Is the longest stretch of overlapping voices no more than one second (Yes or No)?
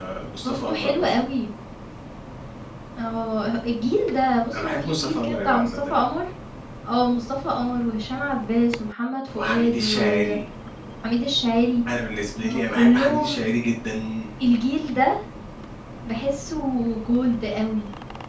No